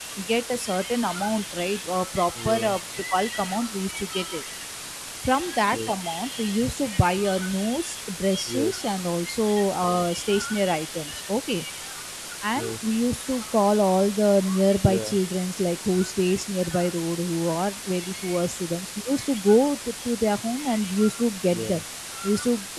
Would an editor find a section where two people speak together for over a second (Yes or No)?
No